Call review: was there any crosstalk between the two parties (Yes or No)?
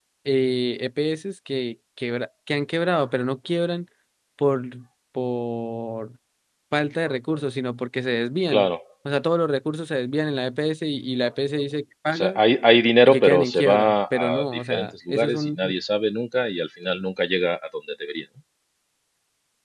Yes